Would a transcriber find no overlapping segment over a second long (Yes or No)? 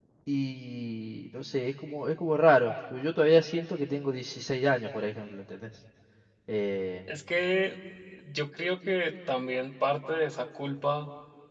Yes